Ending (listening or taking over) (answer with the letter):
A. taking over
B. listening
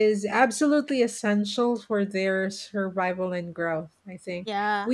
B